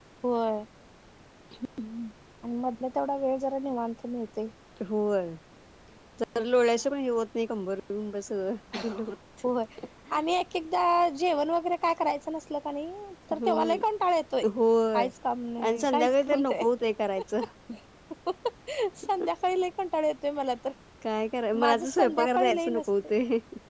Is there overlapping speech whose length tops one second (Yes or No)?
Yes